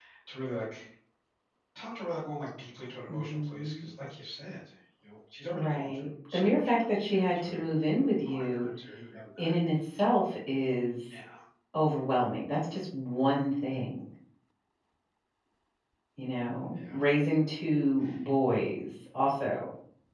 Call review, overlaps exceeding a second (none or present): present